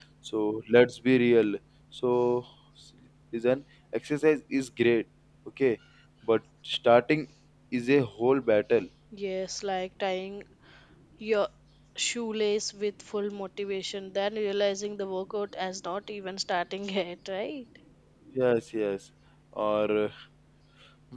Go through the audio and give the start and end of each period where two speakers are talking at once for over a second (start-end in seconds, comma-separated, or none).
none